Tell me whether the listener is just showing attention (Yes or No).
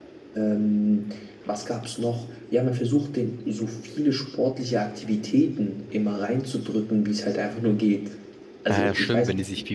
No